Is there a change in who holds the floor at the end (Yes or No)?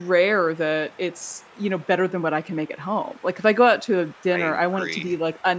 No